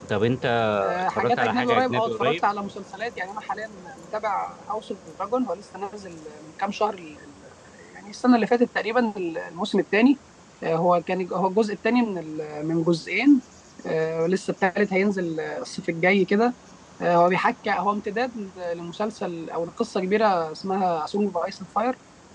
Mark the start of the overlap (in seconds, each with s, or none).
1.0 s